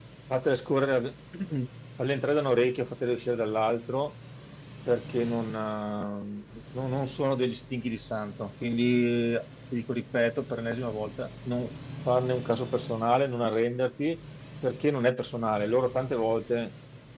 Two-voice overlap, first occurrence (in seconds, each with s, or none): none